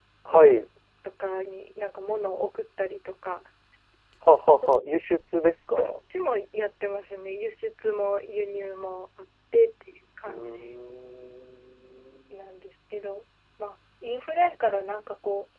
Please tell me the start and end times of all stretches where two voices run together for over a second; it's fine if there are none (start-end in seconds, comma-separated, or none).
none